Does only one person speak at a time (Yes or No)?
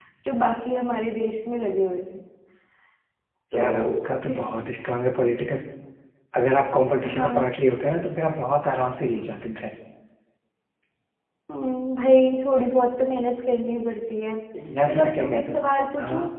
No